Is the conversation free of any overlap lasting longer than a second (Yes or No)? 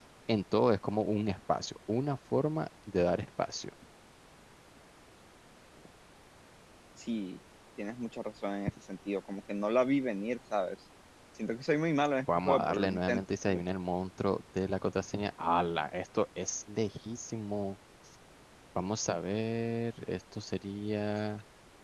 No